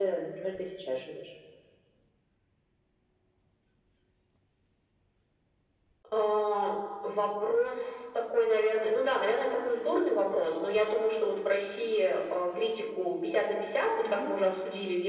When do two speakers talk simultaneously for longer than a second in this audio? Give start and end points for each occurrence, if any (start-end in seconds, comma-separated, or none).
none